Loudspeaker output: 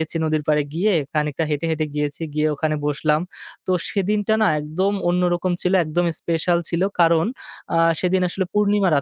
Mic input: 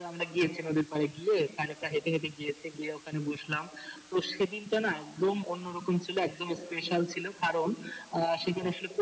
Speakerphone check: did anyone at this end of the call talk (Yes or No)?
No